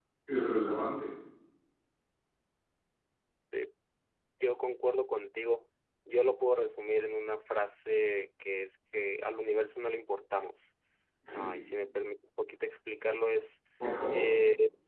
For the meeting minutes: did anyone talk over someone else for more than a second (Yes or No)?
No